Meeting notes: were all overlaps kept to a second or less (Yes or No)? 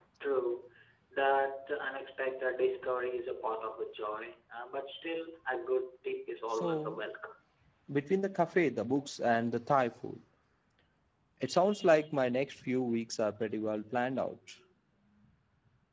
Yes